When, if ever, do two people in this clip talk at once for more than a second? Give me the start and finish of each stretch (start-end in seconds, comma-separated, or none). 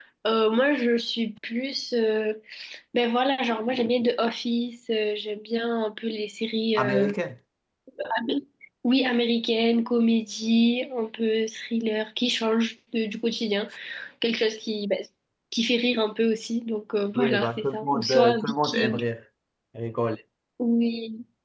17.1-19.0